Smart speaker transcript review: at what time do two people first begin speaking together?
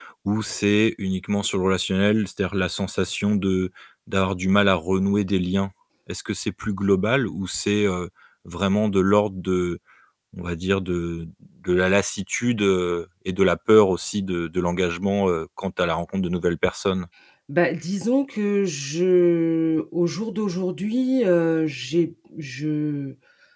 none

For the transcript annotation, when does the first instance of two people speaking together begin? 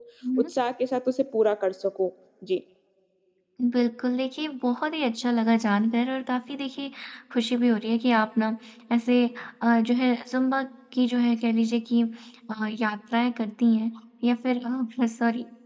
none

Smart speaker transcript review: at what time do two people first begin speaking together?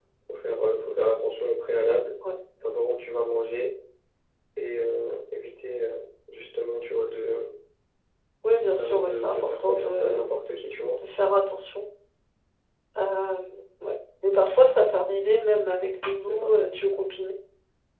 8.7 s

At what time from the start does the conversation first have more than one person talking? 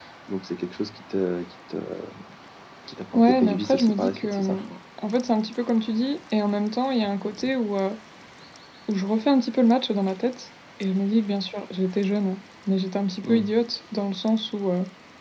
3.1 s

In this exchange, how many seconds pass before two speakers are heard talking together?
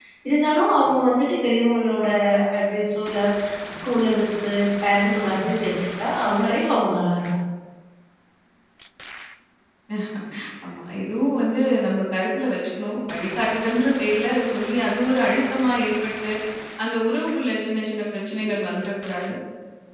none

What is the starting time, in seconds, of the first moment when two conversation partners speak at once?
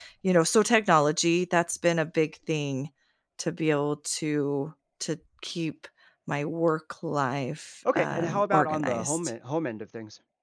7.8 s

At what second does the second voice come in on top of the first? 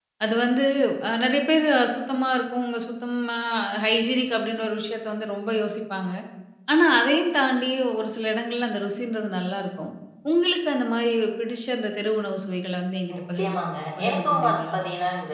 13.1 s

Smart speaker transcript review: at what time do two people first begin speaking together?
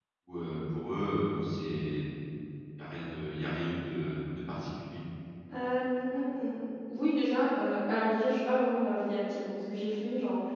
none

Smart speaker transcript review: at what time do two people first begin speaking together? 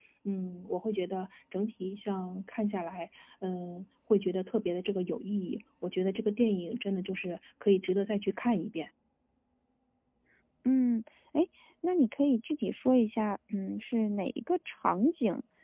none

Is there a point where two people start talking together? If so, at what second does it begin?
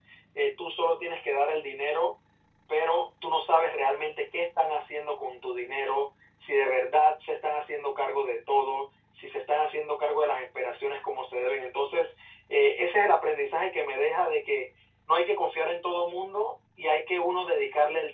none

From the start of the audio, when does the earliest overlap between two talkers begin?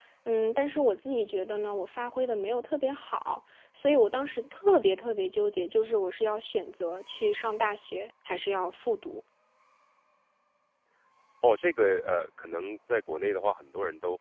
none

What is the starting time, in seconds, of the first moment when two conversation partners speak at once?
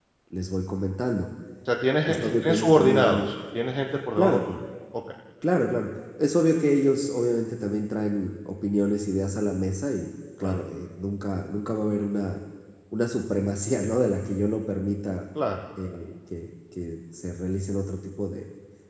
2.0 s

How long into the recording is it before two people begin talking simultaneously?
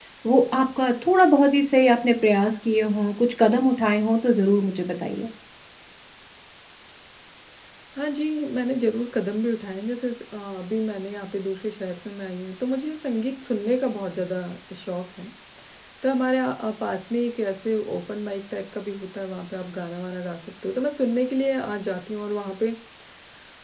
none

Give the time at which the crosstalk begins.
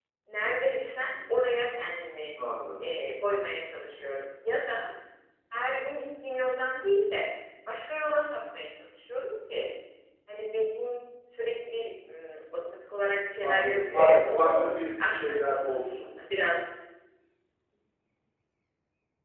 13.4 s

